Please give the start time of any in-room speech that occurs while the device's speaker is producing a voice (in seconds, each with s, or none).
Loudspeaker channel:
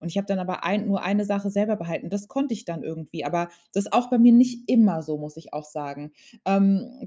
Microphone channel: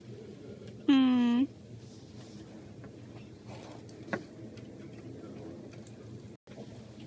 0.9 s